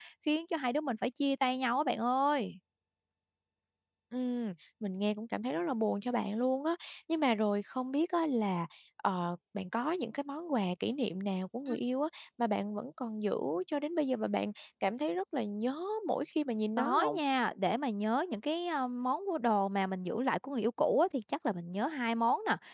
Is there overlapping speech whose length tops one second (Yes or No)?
No